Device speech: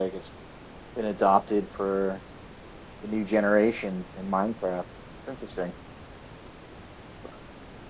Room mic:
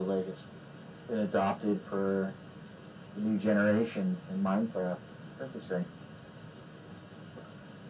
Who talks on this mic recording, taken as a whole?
echo only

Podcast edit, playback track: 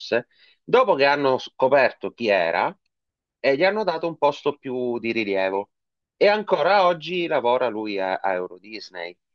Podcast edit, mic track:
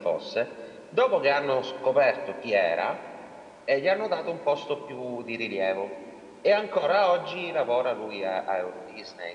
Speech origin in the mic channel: echo only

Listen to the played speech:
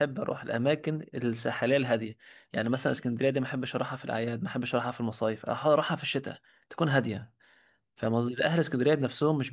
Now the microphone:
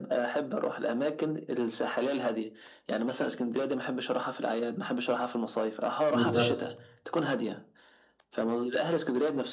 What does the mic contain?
both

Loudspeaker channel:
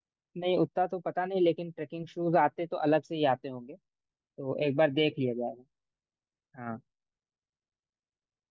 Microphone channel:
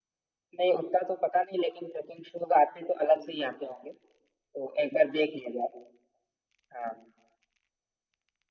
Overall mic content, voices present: echo only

